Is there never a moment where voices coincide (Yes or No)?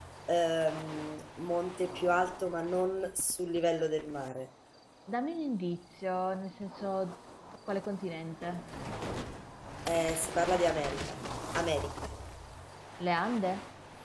Yes